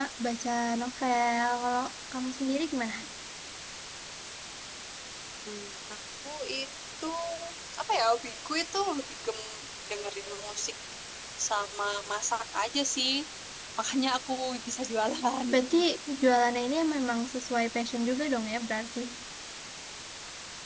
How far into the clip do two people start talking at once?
none

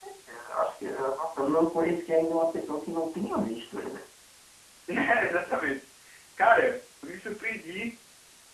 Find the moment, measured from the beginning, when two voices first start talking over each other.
none

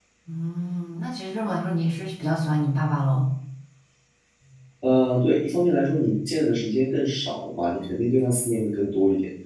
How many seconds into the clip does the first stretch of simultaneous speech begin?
none

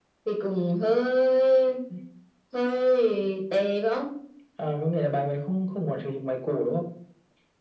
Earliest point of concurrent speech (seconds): none

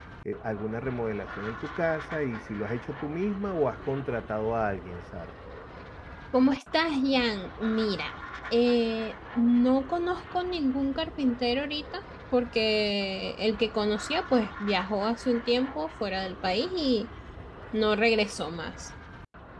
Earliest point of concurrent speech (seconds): none

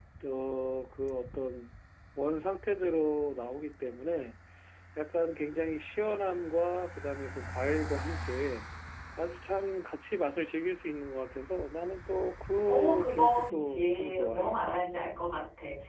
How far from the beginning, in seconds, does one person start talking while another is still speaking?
13 s

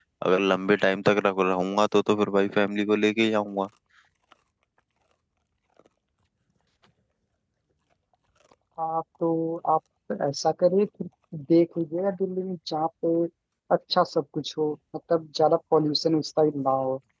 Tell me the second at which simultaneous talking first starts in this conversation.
none

